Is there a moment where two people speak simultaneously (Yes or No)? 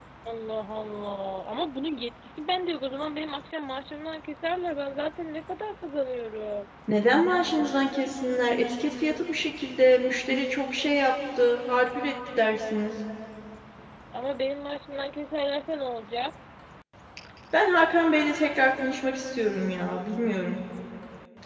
No